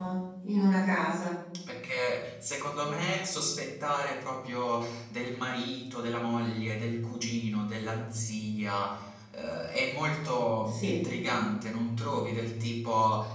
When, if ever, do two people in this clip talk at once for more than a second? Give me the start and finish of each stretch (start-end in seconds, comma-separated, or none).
none